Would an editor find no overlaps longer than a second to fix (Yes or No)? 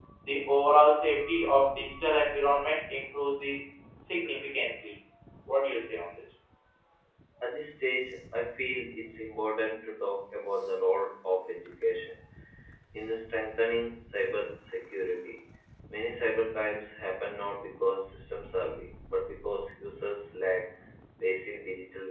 Yes